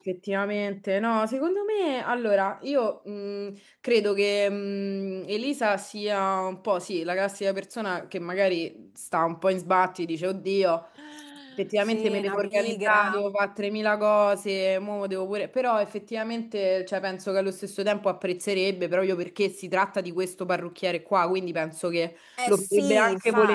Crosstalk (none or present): present